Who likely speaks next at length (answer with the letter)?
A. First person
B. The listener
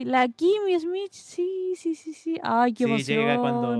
B